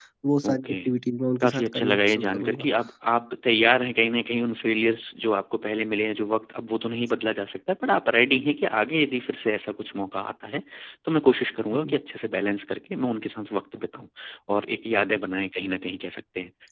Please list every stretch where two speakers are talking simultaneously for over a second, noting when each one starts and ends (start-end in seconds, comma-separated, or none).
1.4-2.7